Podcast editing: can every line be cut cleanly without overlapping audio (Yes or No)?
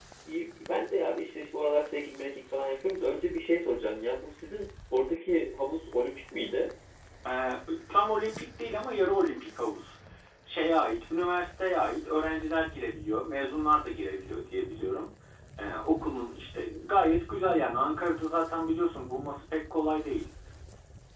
Yes